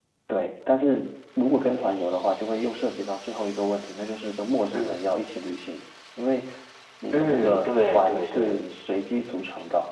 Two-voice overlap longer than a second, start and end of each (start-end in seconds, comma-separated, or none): 7.1-8.6